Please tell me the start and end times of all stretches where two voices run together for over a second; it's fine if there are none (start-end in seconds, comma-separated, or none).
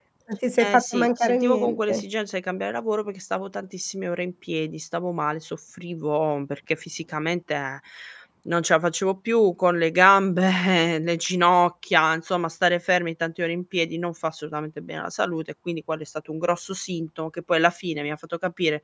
0.6-2.0